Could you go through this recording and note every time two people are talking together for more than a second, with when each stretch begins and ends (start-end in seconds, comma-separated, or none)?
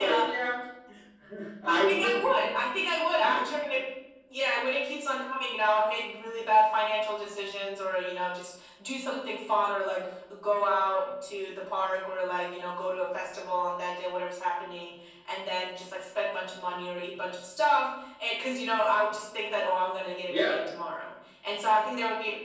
none